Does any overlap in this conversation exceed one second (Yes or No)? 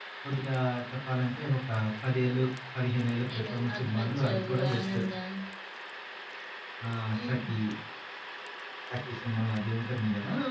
Yes